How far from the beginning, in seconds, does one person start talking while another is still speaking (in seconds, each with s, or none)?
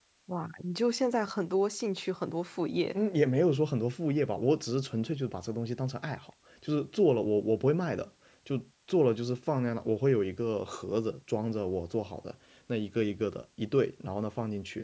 none